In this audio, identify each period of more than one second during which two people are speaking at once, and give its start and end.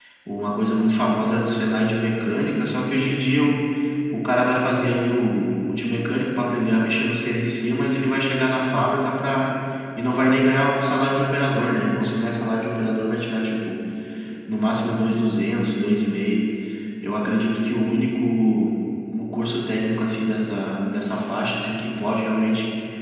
none

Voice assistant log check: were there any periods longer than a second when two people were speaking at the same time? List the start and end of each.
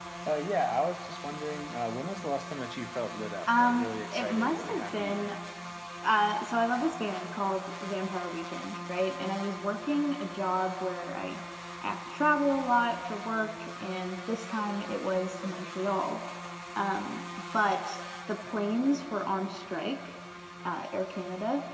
3.5-5.3

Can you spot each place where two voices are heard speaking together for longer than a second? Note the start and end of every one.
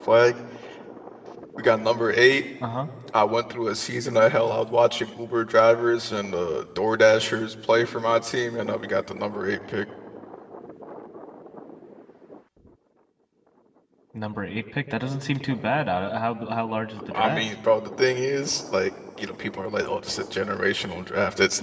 none

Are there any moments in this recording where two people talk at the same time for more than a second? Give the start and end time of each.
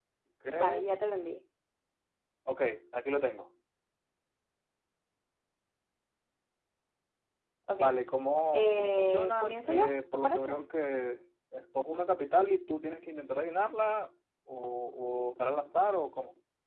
8.5-10.6

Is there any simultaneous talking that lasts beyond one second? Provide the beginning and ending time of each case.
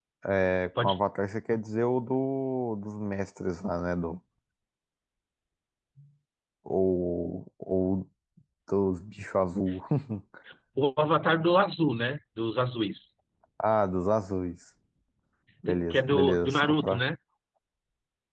15.7-17.0

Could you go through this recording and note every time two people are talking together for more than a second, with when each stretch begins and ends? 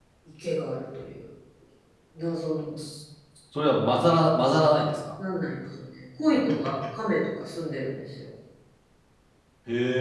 none

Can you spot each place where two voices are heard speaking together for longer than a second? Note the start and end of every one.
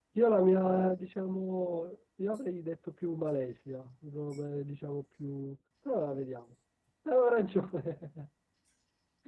none

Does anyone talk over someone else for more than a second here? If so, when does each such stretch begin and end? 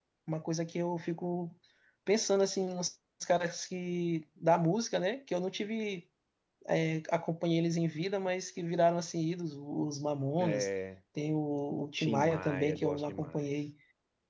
12.0-13.5

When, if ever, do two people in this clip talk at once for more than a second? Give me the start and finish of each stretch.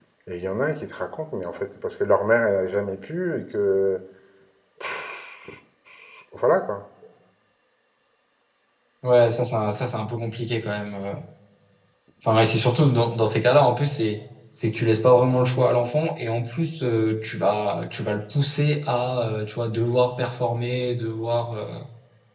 none

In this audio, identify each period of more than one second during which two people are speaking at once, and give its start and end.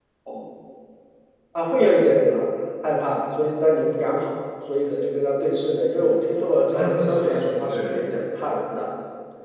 6.6-8.2

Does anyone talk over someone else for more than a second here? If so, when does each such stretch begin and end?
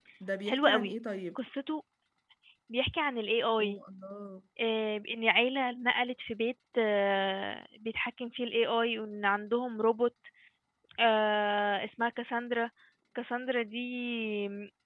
none

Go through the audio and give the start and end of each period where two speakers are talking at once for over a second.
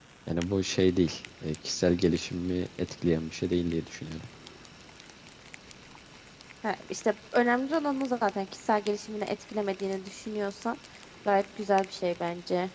none

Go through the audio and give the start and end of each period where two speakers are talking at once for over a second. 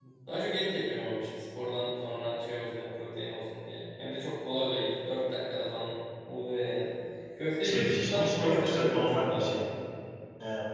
7.6-9.6

